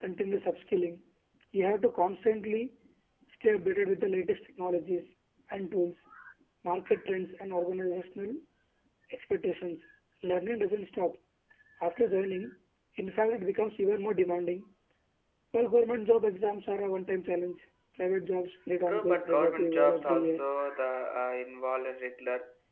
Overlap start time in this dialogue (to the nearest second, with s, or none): 19 s